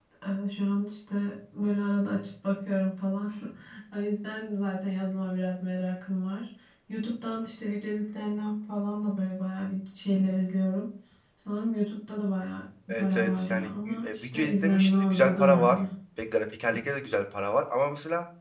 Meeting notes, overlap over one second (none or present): present